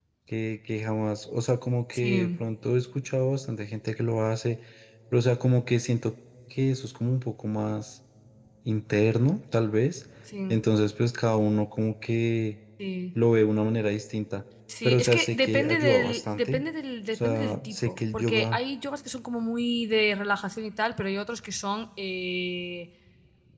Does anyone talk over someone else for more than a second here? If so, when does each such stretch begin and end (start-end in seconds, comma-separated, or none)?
14.8-16.6, 17.1-18.6